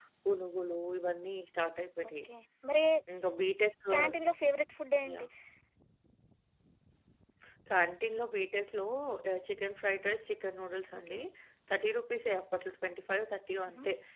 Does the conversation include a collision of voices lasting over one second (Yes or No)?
No